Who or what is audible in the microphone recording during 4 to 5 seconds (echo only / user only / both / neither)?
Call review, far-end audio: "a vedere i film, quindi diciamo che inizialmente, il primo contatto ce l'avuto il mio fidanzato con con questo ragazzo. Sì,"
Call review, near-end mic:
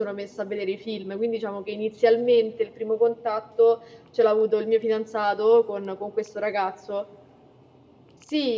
echo only